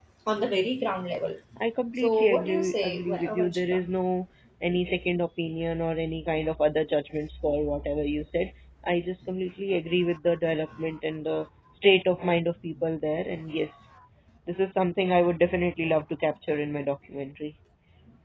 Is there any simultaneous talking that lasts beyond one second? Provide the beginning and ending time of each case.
2.0-3.8

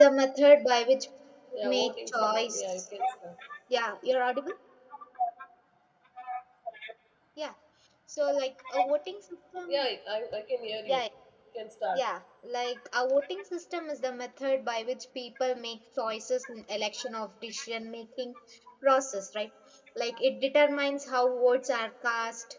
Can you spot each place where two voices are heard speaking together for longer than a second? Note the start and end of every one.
1.6-2.8

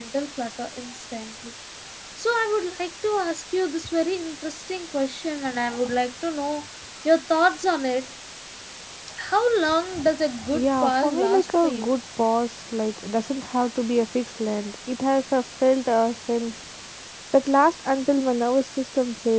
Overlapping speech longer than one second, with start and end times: 10.5-11.9

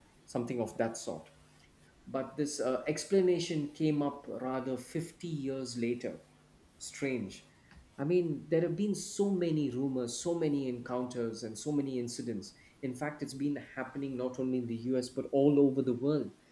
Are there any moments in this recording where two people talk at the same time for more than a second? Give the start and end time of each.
none

